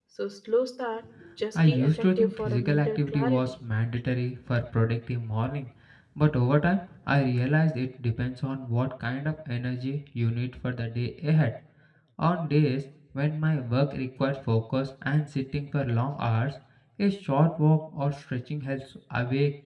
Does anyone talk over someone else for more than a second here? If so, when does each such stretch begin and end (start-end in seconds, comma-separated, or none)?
1.6-3.5